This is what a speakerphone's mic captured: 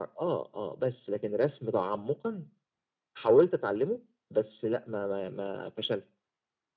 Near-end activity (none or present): none